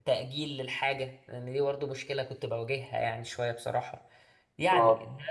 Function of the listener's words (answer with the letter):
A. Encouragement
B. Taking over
A